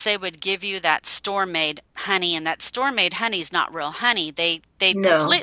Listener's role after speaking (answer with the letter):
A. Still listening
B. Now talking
A